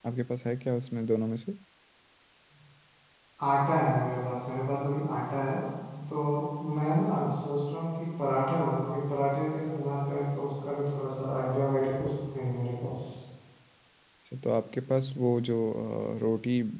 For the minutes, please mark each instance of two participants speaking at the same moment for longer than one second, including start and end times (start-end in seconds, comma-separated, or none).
none